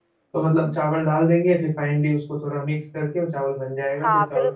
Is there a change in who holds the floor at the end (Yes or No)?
Yes